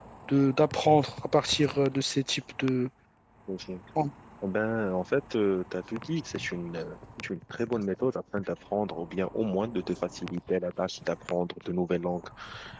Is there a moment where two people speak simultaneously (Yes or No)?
No